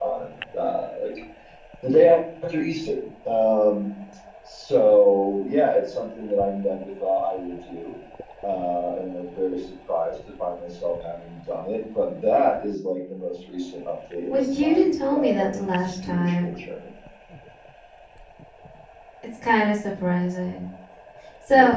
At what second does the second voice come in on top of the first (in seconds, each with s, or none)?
14.3 s